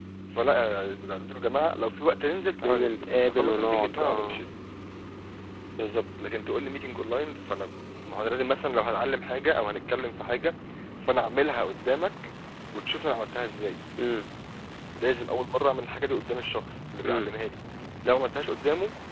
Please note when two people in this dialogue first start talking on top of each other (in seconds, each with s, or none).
2.6 s